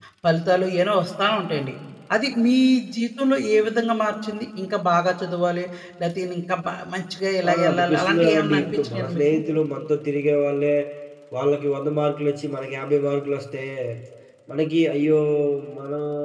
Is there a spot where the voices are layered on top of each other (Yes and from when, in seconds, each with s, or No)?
Yes, from 7.4 s